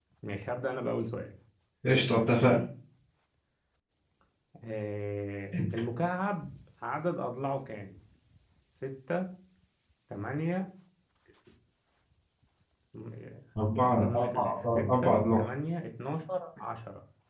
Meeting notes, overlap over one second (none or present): present